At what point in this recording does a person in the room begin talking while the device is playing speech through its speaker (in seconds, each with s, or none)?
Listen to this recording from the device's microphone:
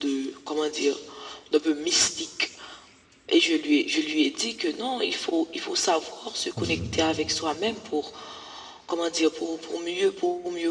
6.6 s